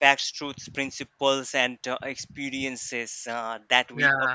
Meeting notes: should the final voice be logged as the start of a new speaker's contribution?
No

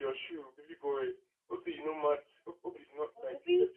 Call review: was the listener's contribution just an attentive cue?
No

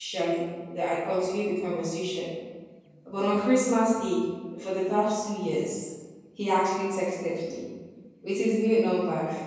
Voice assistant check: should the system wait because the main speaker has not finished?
Yes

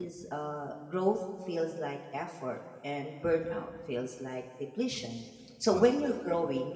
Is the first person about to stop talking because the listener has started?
No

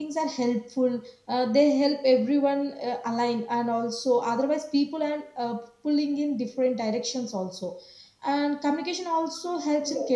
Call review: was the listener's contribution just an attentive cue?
No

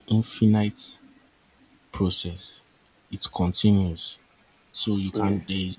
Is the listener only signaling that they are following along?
Yes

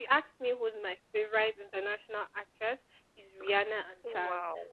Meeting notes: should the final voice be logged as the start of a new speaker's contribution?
No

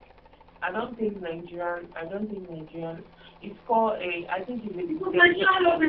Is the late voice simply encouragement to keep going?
No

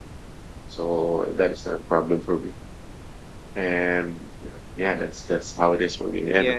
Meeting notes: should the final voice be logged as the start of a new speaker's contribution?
Yes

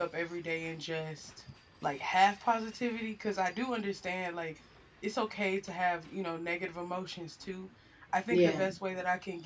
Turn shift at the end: No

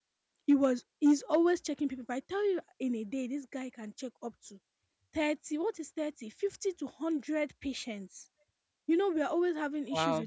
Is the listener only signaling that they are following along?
Yes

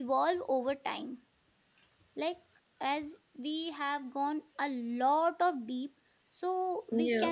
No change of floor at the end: Yes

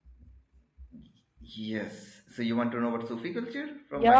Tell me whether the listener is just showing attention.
No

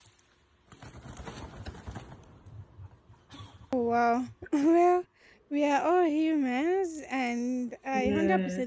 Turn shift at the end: No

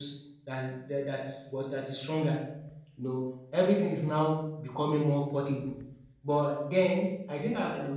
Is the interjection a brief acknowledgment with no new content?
Yes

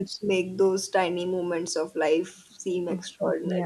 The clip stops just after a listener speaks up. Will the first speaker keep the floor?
No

